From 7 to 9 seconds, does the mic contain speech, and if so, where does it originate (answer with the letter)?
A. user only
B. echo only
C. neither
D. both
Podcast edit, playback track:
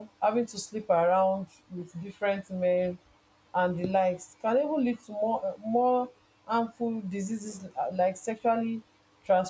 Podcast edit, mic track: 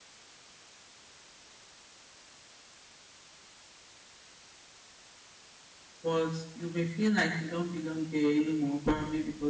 A